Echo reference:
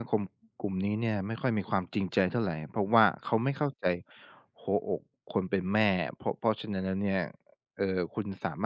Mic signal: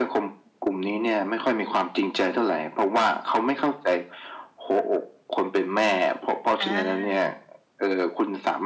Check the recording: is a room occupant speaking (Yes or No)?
Yes